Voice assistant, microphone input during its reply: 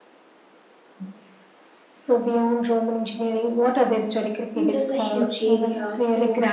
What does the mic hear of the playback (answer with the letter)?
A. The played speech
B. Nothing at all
A